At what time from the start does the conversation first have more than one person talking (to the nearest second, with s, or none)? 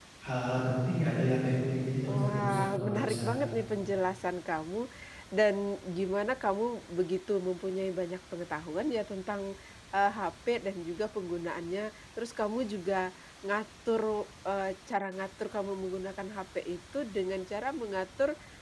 2 s